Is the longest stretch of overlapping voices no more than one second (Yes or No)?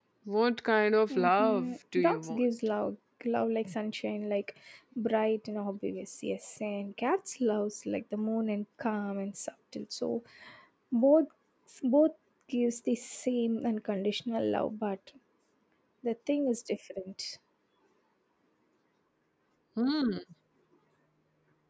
No